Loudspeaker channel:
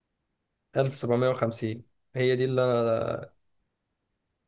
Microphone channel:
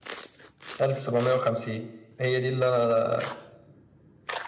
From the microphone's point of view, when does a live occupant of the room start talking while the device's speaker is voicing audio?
none

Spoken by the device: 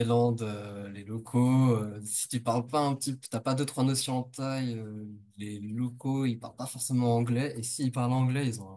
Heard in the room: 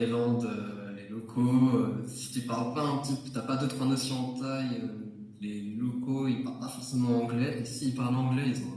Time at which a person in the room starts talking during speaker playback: none

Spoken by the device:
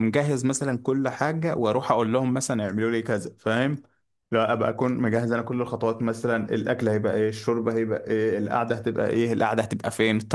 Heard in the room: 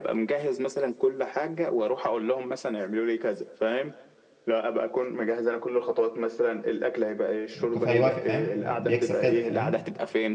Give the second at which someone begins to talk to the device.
7.6 s

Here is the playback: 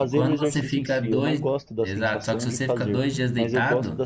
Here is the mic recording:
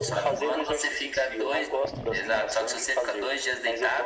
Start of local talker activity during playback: none

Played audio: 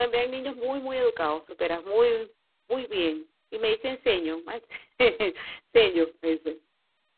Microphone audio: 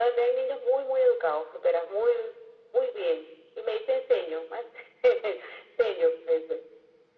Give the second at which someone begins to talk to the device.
none

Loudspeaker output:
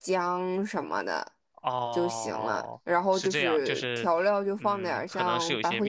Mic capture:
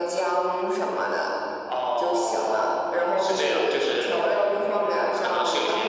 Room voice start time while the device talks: none

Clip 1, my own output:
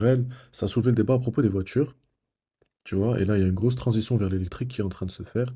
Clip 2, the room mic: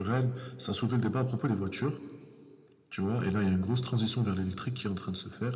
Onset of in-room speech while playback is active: none

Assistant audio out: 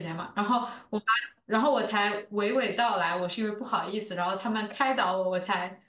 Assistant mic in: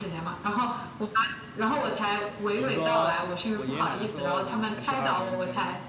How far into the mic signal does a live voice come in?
2.5 s

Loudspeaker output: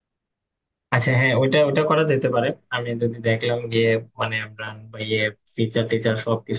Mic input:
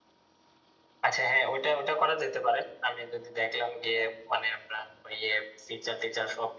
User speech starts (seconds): none

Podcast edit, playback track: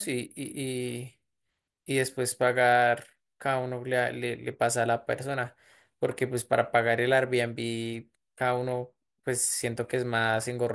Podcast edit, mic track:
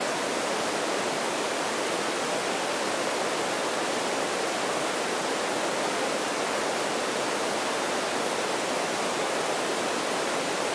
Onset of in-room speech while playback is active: none

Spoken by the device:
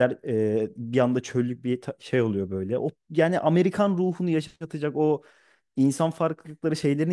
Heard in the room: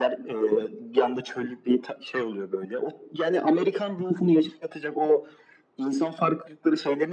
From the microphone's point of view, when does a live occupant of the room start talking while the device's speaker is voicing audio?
none

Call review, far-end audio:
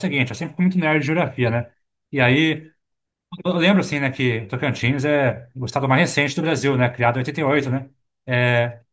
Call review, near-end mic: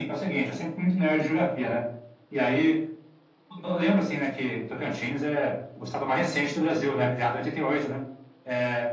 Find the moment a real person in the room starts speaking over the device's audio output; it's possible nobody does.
none

